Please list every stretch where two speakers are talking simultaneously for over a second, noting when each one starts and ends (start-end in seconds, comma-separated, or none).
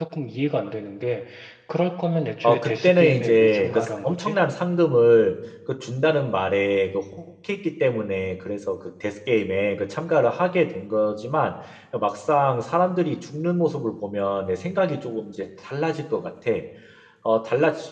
2.4-4.3